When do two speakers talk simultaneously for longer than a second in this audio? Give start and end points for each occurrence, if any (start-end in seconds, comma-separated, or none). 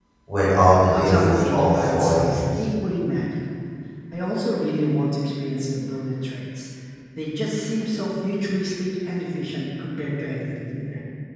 0.9-2.4